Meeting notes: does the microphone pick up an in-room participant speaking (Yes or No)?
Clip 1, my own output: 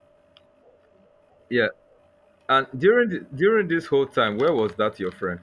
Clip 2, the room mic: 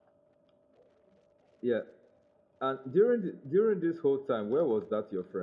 No